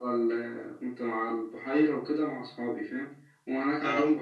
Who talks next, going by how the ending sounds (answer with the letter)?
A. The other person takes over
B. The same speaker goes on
B